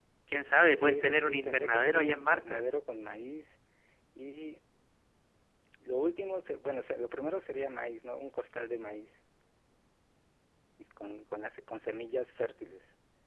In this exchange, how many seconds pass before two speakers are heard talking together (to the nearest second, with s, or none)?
1 s